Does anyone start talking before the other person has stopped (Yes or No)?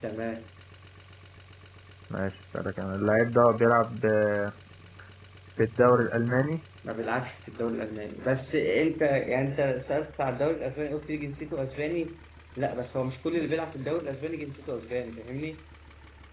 No